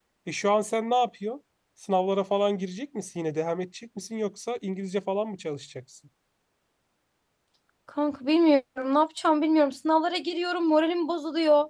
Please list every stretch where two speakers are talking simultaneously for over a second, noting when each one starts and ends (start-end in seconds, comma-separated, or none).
none